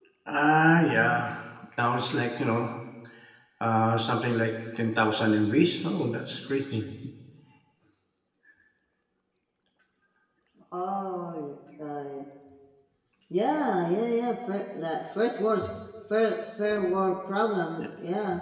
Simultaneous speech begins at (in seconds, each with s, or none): none